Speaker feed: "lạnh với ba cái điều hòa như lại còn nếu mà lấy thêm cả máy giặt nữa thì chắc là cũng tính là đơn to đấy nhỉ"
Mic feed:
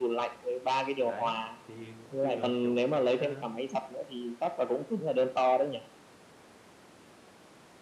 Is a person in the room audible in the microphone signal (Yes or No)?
Yes